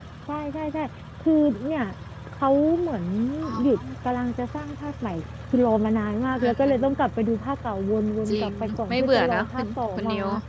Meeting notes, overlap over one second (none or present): present